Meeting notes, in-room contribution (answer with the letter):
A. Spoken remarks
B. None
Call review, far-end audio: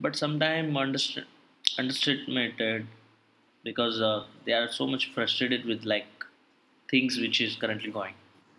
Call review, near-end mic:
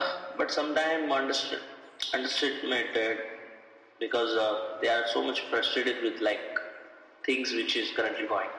B